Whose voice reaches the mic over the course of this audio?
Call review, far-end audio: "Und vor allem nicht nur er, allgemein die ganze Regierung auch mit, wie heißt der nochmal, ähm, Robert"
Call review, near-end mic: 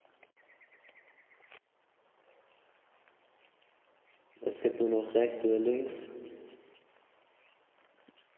user only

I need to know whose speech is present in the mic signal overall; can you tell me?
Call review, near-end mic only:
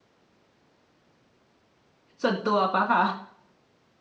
user only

